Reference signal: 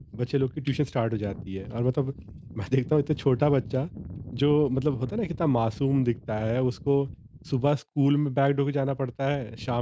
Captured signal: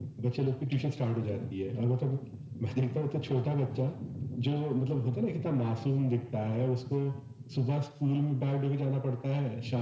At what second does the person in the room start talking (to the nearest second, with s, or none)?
none